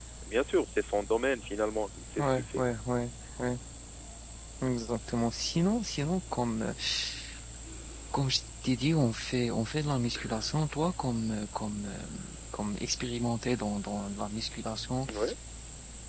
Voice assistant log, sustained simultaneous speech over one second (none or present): none